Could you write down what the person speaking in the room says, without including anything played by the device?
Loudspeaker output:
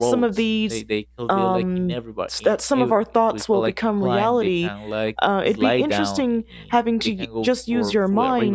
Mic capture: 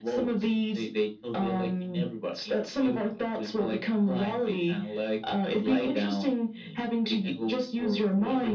none

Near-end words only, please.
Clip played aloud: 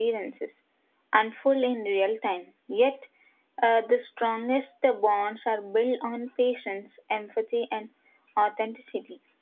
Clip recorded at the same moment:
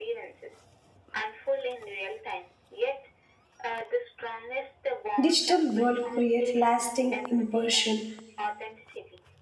digital world, create lasting impression

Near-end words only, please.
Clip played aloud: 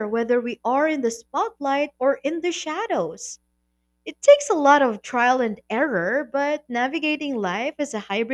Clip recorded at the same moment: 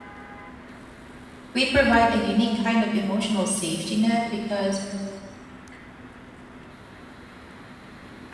We provide a unique kind of emotional safety net because

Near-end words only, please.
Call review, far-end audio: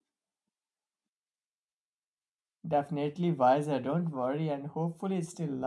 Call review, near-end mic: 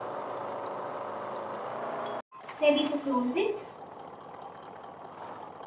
Ready to close it?

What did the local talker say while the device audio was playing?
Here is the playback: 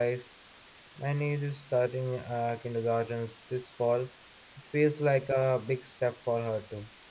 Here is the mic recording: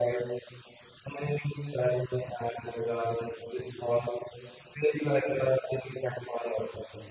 none

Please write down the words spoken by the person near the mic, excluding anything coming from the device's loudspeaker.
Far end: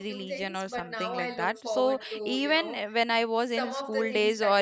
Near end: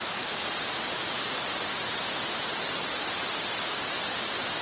none

